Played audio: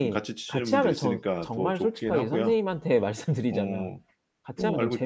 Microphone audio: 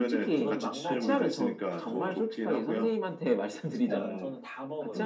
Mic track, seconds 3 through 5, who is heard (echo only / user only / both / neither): both